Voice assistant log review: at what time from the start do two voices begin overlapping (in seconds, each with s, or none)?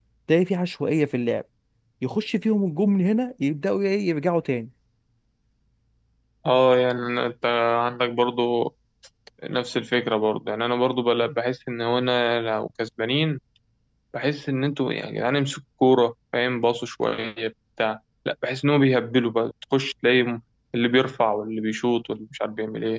none